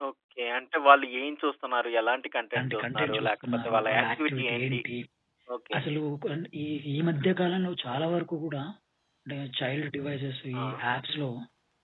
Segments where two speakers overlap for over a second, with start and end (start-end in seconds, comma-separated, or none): 2.5-4.8